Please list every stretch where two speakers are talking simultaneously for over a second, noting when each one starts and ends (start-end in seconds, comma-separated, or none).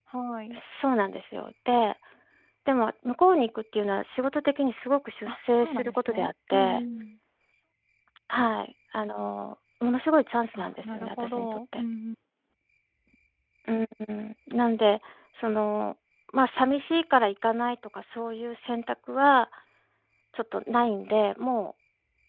5.3-6.8, 10.6-11.8